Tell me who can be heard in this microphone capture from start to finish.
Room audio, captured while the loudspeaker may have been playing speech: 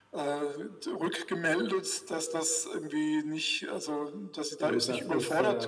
both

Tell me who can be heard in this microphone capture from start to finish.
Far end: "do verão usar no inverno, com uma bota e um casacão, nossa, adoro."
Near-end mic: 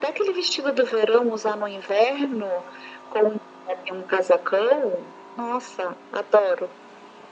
echo only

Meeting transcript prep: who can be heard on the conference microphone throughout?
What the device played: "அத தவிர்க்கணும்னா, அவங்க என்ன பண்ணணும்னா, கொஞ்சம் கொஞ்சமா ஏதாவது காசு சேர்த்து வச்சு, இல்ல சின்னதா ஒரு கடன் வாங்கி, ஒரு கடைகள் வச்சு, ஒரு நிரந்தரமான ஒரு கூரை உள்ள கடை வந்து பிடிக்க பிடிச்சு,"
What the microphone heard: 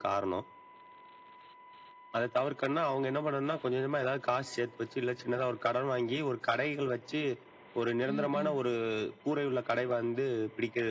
both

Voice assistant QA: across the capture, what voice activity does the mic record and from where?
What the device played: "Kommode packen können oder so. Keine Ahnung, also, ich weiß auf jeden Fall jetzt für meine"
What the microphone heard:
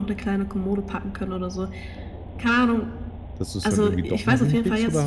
both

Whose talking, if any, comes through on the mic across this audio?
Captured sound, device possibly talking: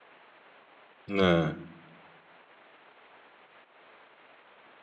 user only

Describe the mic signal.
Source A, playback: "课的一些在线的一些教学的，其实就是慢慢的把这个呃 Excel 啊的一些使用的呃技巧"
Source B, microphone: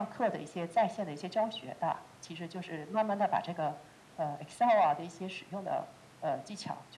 echo only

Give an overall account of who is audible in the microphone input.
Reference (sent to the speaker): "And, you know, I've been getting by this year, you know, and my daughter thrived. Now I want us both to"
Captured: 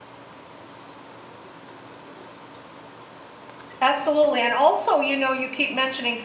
user only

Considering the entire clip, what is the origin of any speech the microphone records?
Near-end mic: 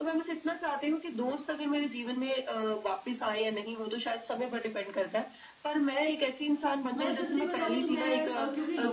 both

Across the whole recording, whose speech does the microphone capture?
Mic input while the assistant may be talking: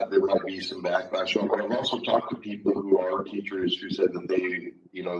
echo only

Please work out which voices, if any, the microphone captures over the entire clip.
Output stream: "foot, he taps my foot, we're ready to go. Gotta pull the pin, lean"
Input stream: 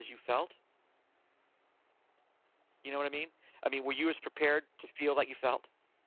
user only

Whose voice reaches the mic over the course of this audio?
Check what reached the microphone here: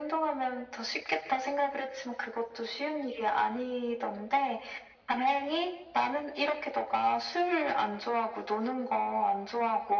echo only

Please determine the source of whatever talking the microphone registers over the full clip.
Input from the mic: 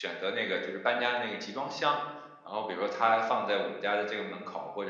user only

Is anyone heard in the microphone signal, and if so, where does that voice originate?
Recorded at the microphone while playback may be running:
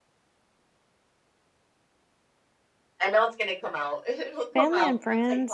both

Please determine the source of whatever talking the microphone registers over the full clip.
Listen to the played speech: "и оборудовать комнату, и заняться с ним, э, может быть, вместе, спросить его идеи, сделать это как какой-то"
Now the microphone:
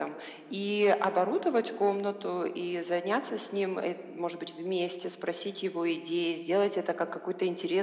echo only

